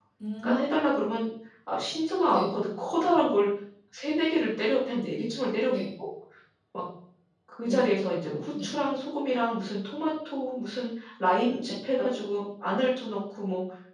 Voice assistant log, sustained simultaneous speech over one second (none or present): none